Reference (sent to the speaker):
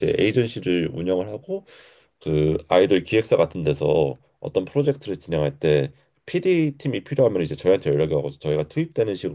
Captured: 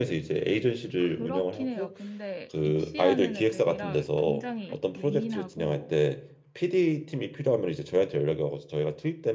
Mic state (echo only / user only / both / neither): both